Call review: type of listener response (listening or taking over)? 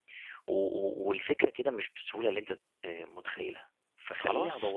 listening